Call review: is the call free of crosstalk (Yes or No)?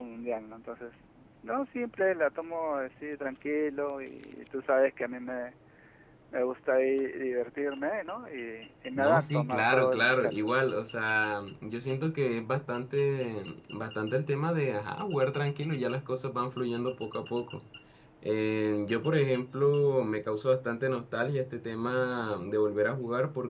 No